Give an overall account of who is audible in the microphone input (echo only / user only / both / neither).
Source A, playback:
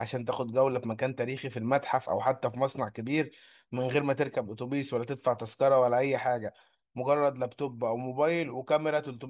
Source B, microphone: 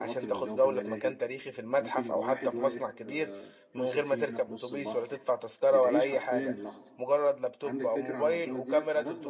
both